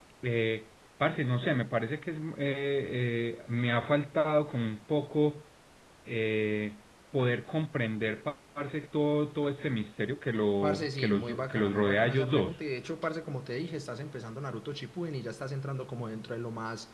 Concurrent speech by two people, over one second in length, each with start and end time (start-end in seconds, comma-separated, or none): 10.6-12.6